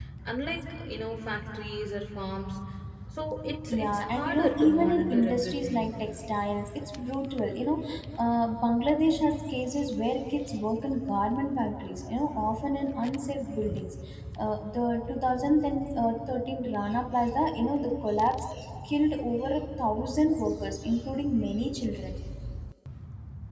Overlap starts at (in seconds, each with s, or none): 3.7 s